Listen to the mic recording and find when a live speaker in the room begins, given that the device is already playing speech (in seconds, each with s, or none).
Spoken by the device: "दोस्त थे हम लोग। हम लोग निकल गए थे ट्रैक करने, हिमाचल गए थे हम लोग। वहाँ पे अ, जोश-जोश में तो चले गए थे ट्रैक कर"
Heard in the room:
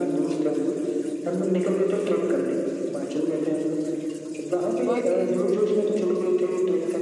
4.9 s